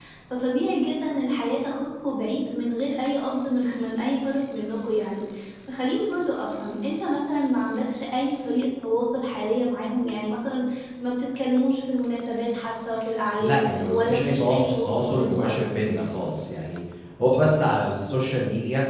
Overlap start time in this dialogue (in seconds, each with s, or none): 13.4 s